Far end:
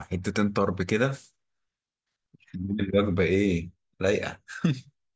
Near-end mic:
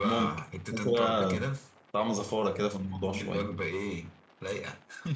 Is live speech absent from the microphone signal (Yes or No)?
No